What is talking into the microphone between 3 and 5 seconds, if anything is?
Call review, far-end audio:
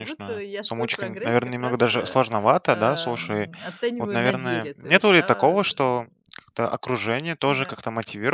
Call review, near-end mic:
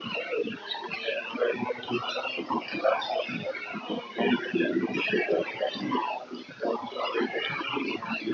echo only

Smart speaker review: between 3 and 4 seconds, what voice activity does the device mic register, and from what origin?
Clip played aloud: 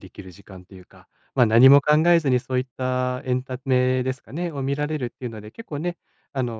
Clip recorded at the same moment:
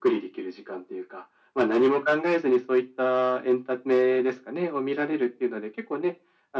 echo only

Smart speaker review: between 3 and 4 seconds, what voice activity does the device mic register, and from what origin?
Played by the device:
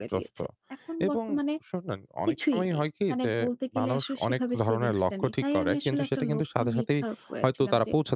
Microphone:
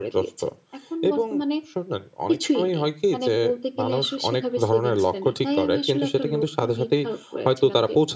echo only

